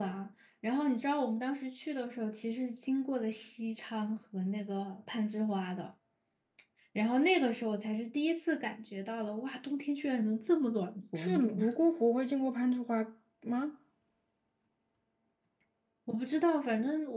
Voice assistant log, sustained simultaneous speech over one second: none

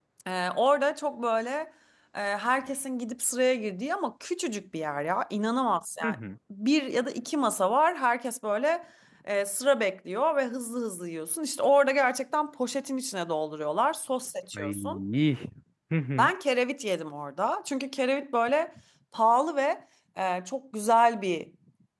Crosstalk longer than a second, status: none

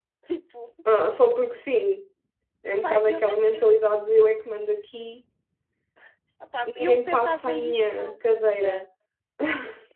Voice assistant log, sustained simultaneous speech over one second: present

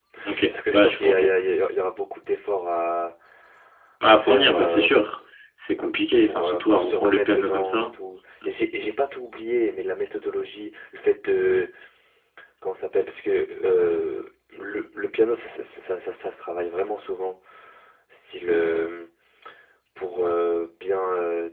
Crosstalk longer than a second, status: present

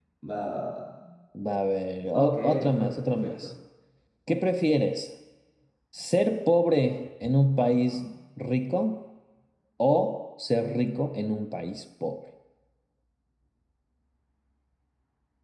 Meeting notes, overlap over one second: present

